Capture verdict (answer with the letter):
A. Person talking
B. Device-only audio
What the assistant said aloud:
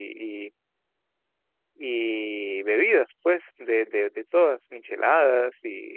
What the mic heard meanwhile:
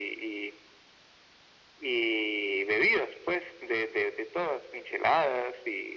B